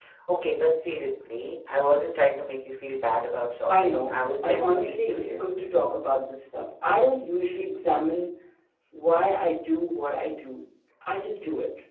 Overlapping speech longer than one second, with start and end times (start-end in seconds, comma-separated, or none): 3.7-5.7